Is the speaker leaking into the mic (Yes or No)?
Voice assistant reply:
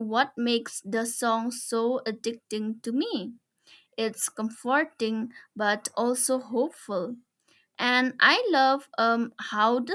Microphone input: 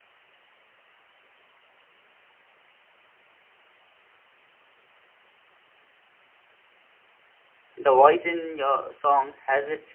No